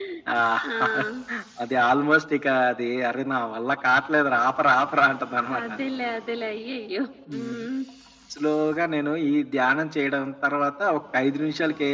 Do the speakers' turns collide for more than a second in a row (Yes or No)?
No